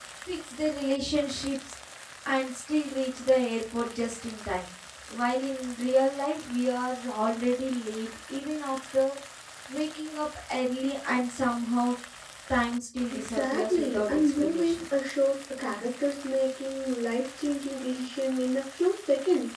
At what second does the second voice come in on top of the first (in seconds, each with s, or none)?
13.1 s